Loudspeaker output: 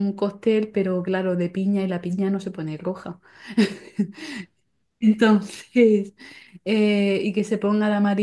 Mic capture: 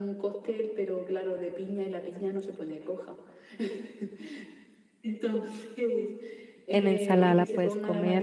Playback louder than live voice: No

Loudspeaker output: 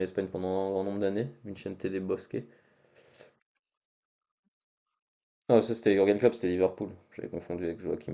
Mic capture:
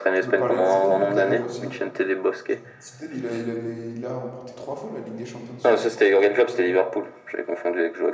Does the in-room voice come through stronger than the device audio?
No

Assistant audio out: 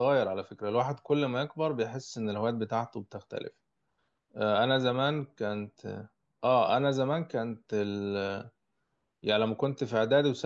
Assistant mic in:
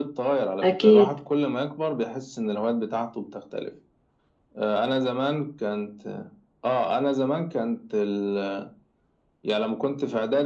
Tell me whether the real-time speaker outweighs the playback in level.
Yes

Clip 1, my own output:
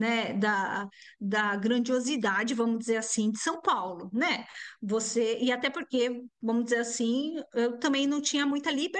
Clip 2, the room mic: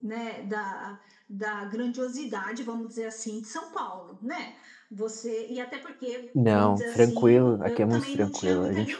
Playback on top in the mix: No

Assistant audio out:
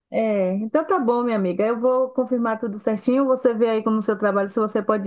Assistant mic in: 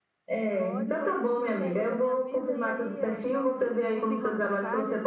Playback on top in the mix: Yes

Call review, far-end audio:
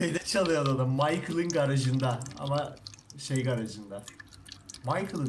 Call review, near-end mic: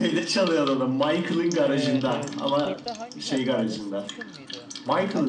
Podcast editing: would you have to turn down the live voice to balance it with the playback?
No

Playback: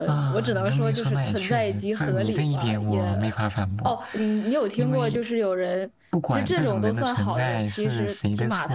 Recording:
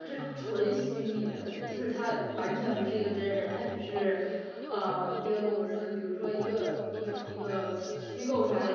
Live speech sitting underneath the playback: No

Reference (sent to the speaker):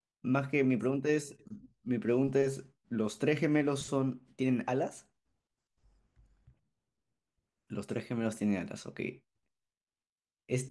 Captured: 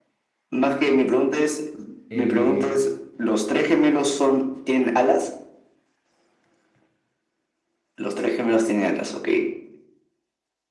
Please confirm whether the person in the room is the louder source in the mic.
No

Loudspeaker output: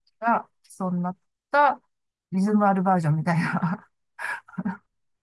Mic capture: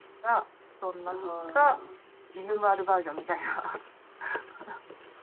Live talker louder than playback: No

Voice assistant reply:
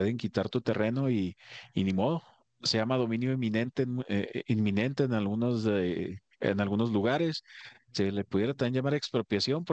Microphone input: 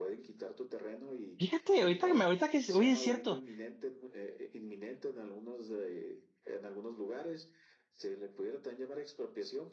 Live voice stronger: Yes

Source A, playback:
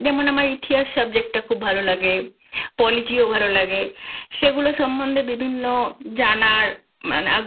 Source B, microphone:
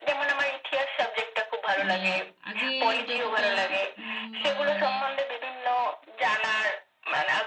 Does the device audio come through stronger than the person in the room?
Yes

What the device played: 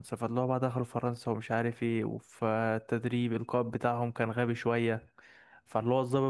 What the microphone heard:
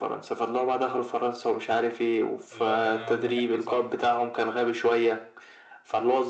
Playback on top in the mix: Yes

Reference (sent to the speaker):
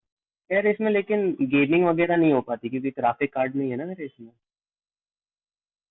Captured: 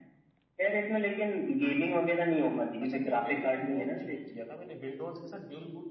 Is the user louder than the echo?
No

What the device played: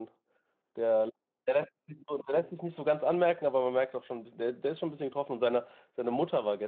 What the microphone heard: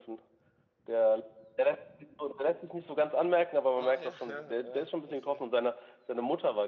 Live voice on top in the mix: No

